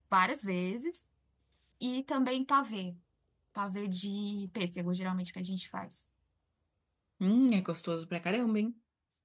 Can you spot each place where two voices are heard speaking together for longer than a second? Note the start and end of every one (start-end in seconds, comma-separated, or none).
none